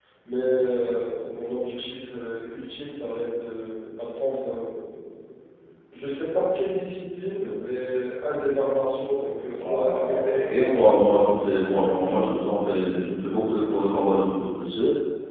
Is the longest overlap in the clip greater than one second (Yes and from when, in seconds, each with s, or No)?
Yes, from 9.6 s